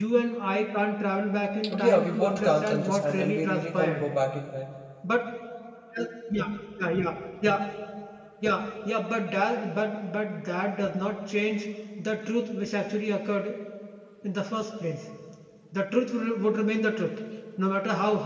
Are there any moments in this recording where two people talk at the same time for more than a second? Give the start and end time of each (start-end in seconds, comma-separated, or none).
1.8-4.1